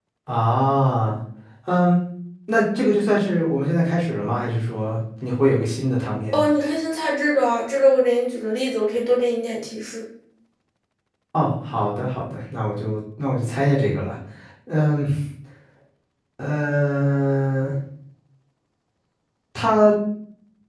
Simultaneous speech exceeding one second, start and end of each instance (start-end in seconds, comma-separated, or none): none